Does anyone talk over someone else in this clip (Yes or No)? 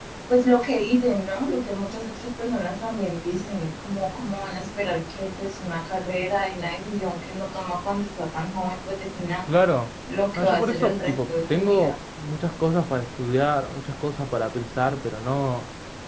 Yes